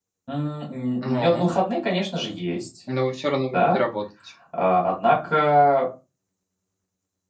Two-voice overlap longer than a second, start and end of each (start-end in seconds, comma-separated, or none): none